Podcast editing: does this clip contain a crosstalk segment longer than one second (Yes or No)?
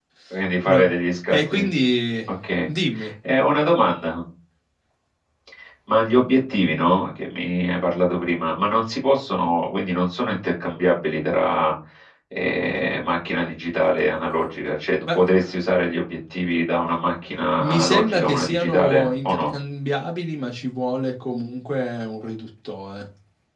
Yes